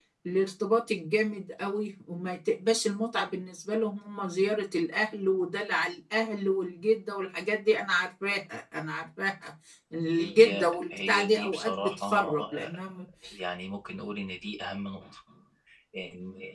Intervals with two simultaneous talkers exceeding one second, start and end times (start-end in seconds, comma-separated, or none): 10.2-12.7